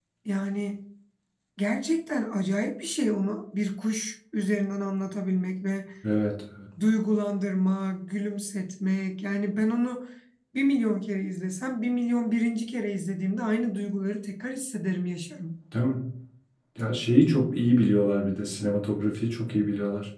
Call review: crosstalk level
none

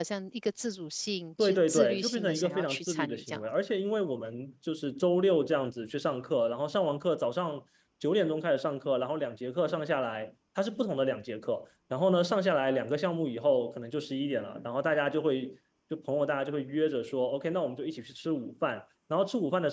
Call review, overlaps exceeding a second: present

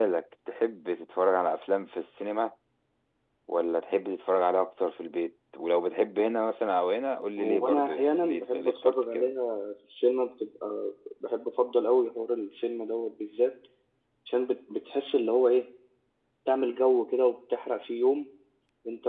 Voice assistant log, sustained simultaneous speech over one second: present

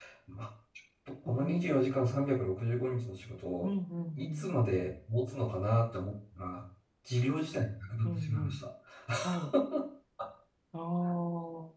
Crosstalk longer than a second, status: none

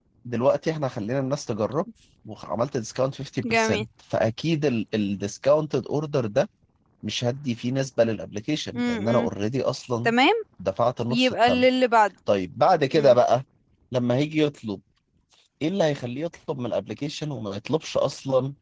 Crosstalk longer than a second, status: none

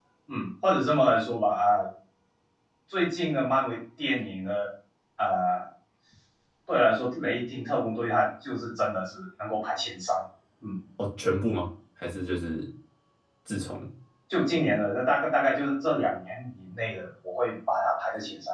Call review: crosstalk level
none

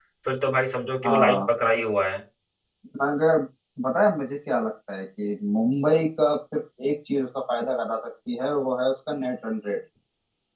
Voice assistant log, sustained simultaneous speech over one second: none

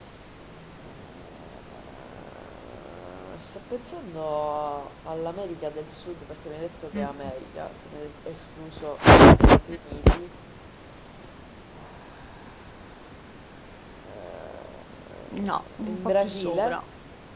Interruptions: present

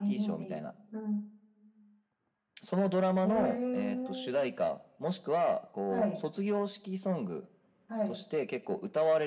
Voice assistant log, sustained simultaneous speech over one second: present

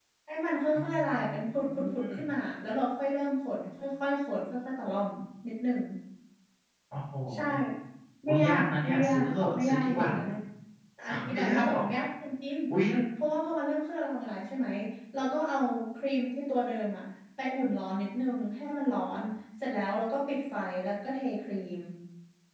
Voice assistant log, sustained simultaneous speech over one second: present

